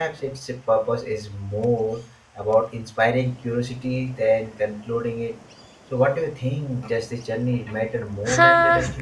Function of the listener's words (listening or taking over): taking over